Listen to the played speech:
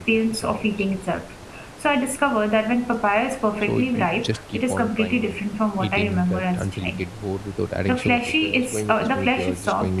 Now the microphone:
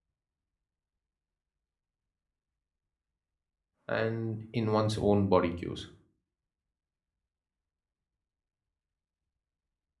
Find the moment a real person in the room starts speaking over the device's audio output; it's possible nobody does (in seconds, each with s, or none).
3.9 s